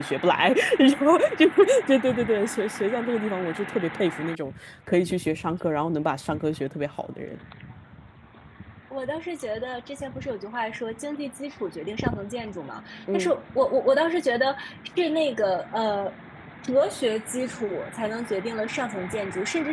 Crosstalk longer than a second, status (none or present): none